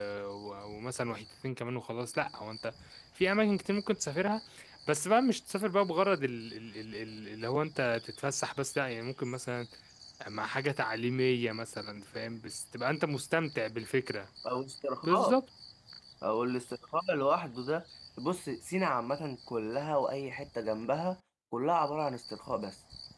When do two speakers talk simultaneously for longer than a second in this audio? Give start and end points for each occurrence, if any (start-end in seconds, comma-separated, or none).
none